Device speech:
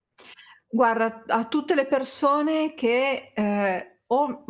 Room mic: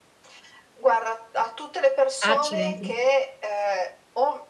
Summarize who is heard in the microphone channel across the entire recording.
both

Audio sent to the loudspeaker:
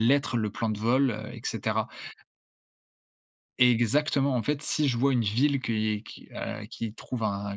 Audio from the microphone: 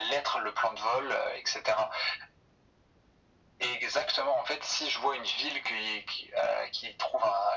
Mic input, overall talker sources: echo only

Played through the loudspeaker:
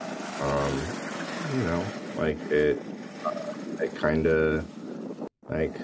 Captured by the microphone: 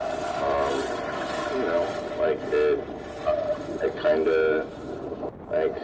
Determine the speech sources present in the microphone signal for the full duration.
echo only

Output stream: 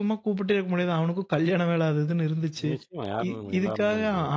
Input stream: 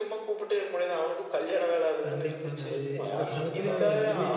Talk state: both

